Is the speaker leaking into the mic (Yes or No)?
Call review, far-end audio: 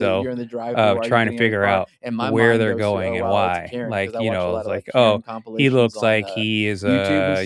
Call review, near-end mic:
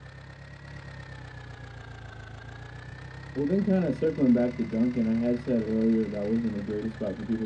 No